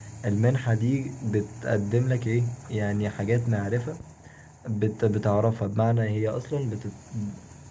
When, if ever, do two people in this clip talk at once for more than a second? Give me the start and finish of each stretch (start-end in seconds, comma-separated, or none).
none